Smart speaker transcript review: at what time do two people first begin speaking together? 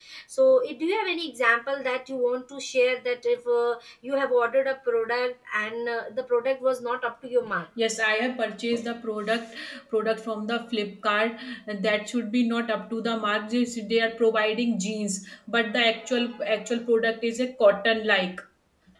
none

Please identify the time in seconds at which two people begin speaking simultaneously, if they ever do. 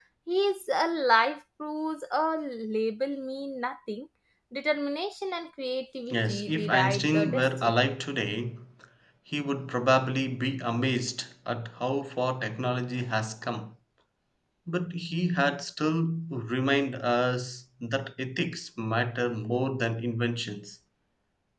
6.1 s

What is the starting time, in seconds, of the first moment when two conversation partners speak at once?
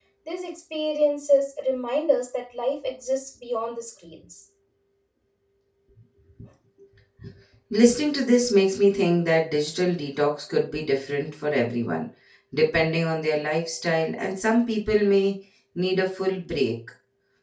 none

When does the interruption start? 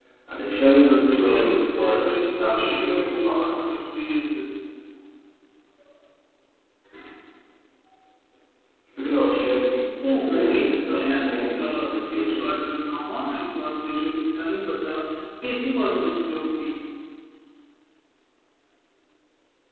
1.0 s

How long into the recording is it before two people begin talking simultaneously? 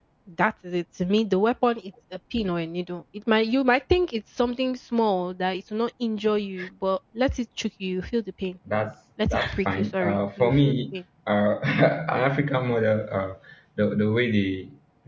9.3 s

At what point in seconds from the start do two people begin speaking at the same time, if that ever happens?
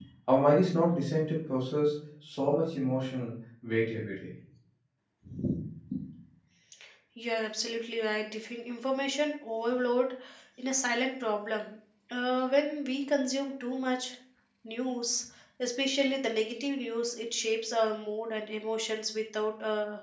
none

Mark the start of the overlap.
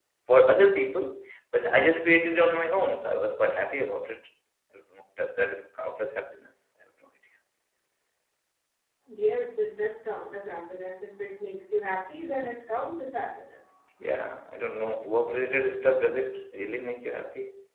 none

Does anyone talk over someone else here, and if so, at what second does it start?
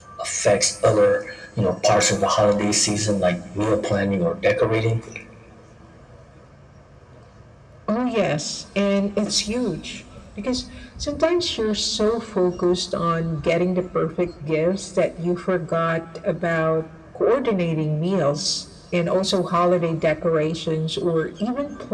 none

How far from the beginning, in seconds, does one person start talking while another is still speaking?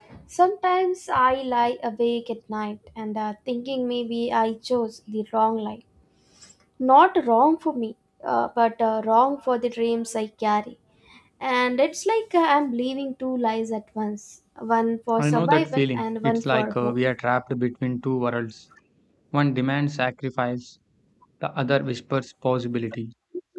15.2 s

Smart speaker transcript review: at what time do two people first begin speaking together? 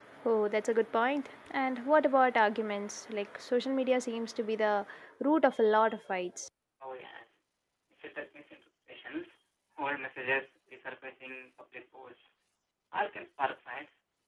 none

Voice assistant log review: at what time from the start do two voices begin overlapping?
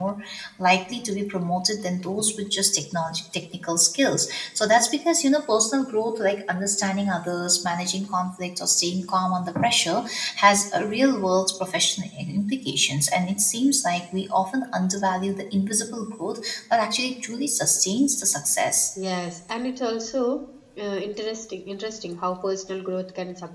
none

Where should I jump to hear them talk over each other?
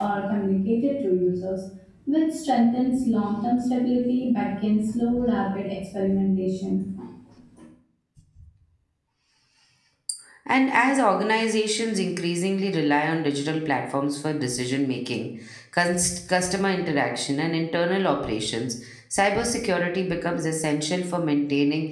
none

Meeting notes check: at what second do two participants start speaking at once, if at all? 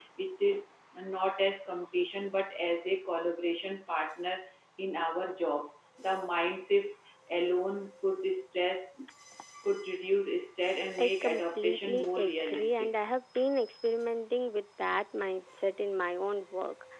11.0 s

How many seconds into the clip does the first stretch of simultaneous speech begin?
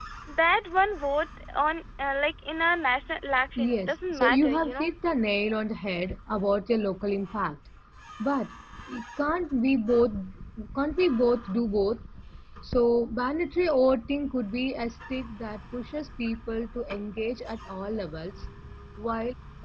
3.6 s

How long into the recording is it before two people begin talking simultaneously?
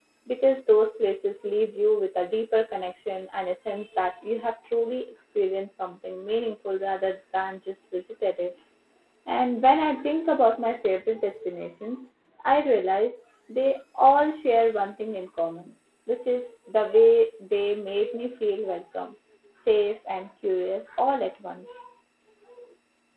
none

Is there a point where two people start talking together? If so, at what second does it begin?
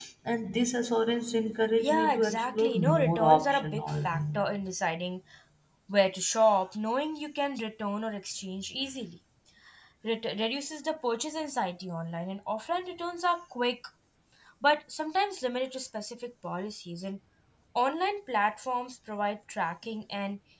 1.8 s

